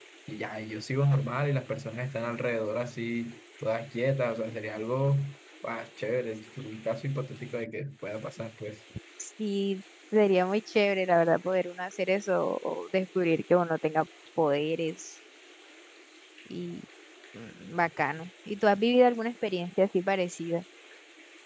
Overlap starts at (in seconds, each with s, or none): none